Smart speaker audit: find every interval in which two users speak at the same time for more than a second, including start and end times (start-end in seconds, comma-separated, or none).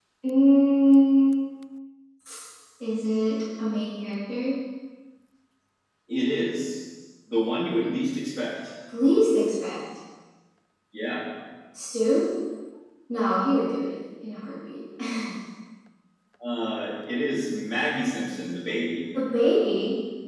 none